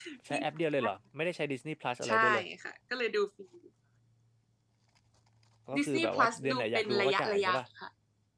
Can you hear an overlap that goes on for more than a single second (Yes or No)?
Yes